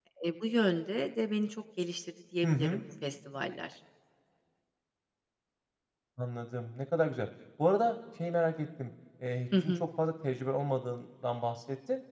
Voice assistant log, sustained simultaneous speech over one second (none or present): none